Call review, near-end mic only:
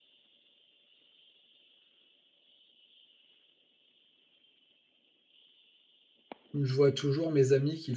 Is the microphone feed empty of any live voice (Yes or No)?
No